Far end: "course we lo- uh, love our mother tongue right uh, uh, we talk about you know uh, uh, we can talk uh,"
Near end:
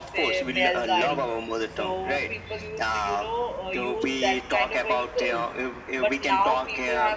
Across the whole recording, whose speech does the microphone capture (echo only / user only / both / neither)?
both